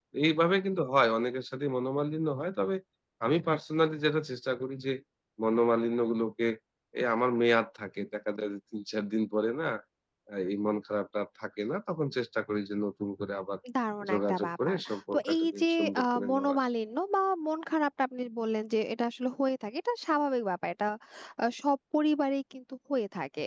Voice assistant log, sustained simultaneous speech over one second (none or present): present